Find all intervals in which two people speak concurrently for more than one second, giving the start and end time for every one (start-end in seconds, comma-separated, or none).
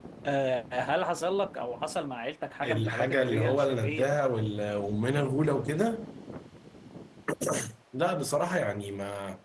2.6-4.2